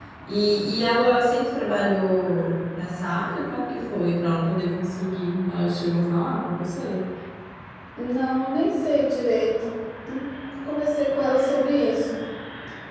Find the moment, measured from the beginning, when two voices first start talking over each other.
none

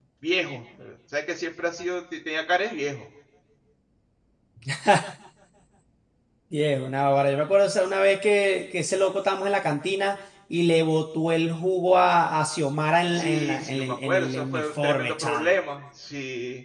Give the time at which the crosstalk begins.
13.1 s

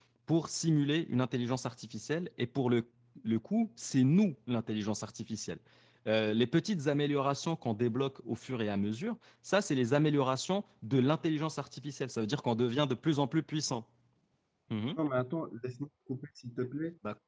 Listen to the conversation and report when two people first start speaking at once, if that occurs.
none

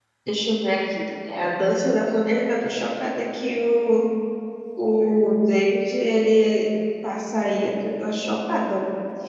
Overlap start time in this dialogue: none

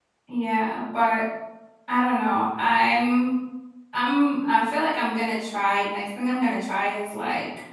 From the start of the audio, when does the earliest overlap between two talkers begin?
none

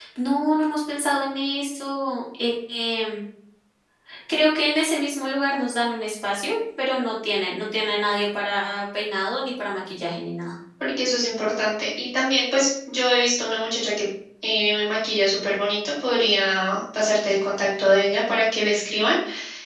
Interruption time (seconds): none

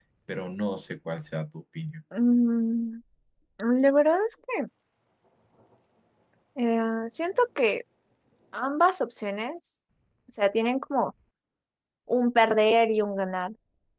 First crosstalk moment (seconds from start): none

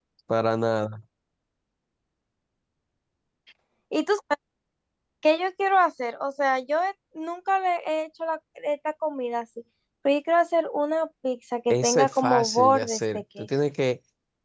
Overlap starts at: 11.7 s

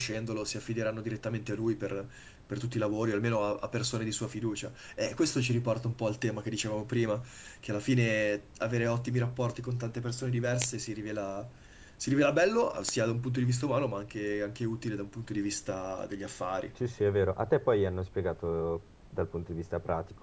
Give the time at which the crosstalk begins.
none

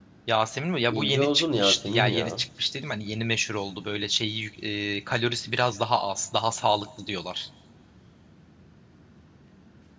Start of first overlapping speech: 0.9 s

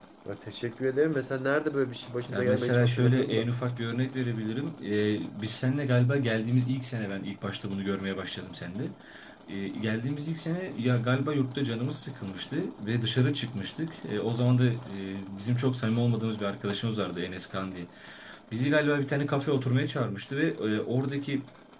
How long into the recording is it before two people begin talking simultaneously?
2.3 s

